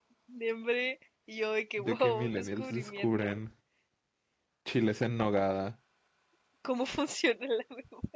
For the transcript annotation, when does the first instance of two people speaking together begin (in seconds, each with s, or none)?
1.8 s